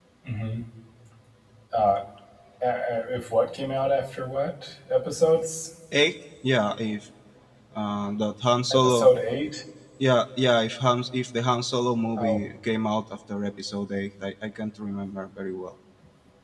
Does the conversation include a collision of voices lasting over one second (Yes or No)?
No